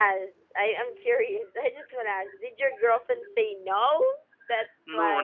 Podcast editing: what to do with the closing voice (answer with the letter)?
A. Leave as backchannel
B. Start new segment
B